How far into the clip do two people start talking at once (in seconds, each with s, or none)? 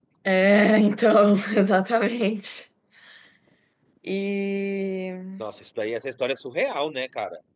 none